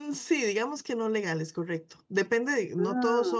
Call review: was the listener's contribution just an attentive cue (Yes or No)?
Yes